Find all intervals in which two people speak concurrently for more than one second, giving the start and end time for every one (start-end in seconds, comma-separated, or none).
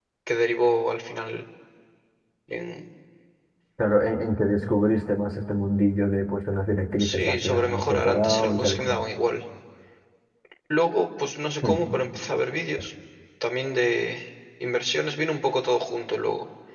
7.0-9.0